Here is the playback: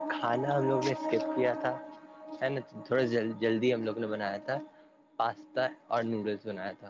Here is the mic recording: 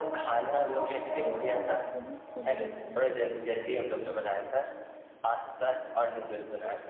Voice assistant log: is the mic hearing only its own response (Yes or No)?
No